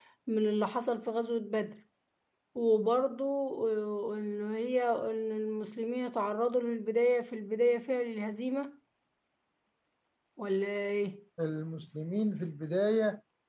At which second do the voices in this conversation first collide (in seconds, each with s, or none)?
none